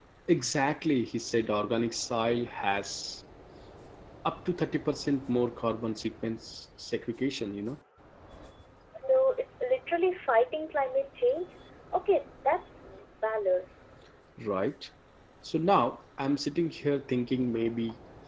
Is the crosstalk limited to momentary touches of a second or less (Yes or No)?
Yes